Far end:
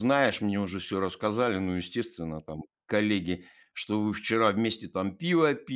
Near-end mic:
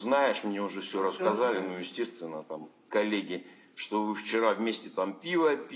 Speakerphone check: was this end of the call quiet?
No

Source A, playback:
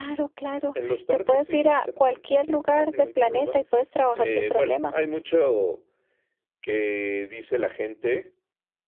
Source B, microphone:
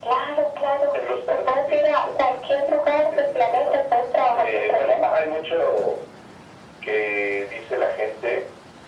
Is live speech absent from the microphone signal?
Yes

